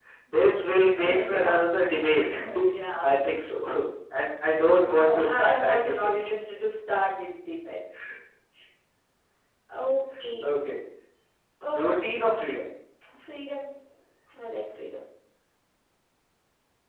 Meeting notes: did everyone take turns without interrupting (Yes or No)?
No